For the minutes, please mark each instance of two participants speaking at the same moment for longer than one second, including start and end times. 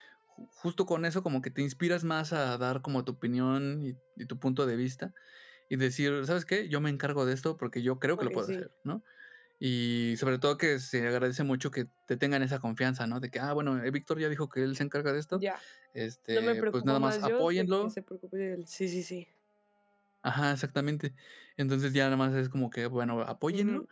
16.3-17.7

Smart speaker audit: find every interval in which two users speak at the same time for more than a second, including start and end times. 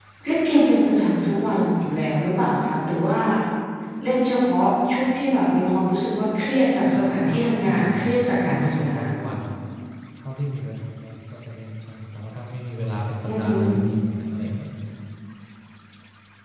6.9-9.1

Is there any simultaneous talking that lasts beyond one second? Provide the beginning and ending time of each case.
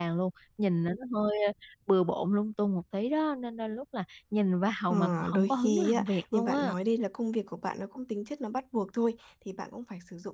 4.9-6.7

